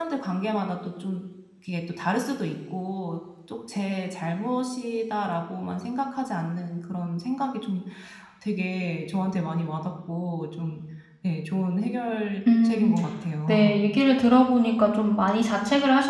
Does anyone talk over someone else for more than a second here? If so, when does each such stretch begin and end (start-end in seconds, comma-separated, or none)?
none